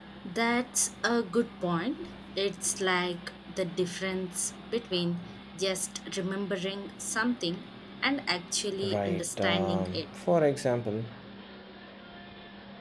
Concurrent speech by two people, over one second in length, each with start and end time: 8.8-10.1

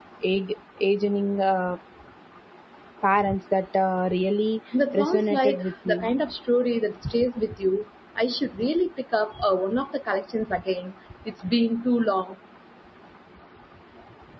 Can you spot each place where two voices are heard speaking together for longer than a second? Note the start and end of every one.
4.9-6.1

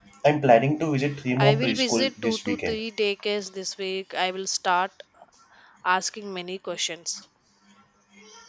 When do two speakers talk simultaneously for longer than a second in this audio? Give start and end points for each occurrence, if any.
1.4-2.8

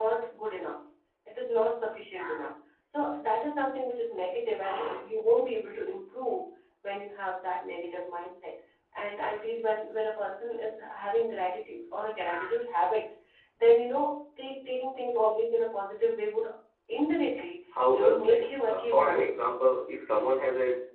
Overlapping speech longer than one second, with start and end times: 17.9-19.3

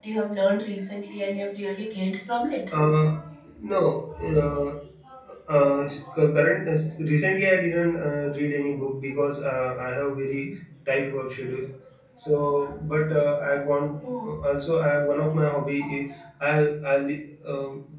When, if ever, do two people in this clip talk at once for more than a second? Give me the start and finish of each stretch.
none

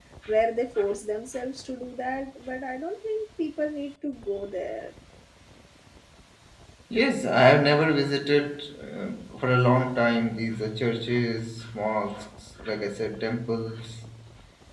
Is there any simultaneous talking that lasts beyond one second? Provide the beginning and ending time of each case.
none

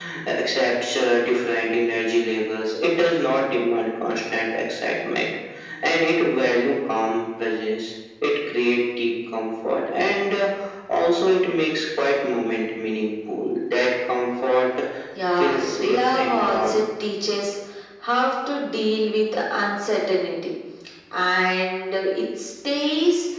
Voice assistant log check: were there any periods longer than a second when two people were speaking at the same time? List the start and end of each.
15.4-16.8

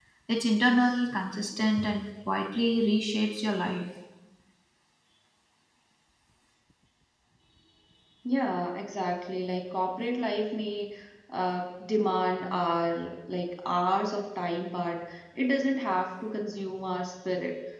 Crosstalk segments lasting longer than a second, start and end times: none

